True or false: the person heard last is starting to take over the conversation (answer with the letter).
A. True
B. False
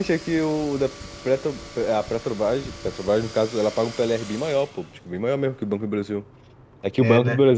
B